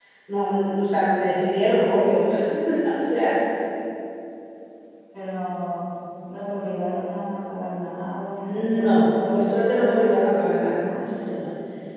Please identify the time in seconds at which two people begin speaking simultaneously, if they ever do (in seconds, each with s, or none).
8.4 s